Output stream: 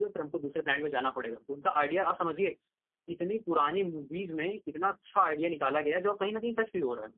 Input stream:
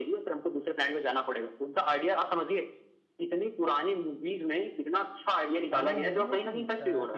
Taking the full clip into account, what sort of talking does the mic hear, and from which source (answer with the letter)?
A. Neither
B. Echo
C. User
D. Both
D